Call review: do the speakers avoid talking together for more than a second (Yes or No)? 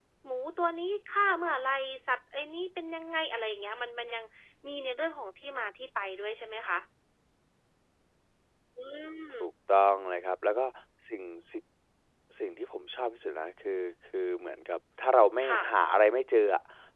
Yes